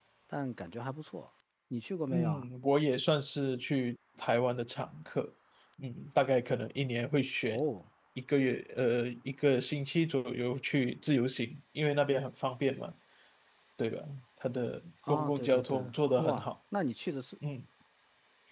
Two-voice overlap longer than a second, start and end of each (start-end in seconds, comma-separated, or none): 15.1-16.5